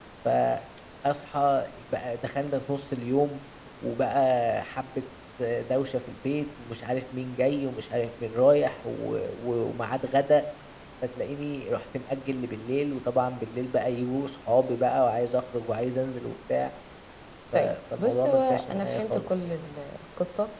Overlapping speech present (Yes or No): Yes